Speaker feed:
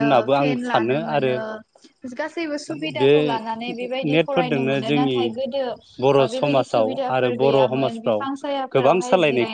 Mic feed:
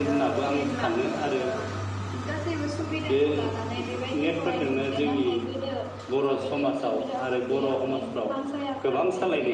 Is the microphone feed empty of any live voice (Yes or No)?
Yes